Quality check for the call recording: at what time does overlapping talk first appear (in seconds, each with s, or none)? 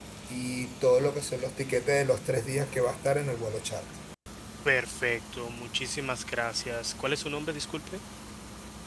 none